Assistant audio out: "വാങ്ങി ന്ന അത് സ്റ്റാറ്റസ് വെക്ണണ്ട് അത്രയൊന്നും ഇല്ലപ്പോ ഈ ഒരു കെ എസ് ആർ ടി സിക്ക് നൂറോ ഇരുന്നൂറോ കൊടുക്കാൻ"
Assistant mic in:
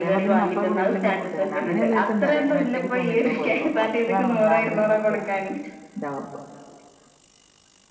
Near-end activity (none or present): present